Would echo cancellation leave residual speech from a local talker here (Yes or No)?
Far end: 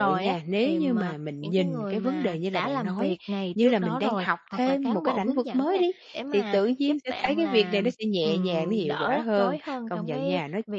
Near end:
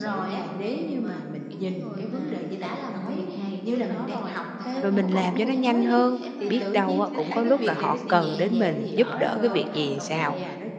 Yes